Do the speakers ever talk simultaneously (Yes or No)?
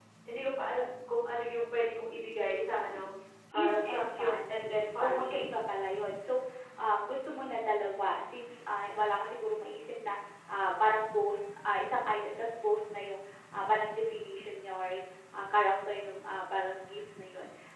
Yes